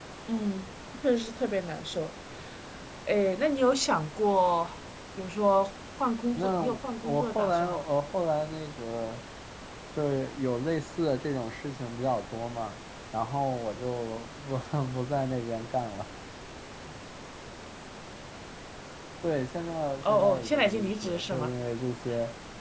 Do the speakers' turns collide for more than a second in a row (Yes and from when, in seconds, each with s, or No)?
Yes, from 6.3 s